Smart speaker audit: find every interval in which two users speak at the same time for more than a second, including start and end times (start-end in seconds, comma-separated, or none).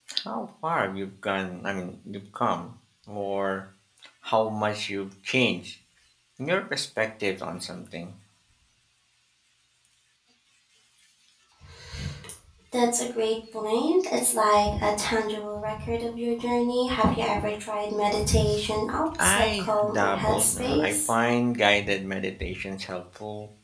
19.2-21.1